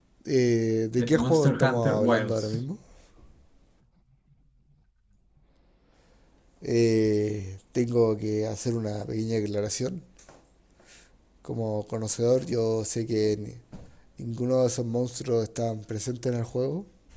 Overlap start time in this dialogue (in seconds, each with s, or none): 1.0 s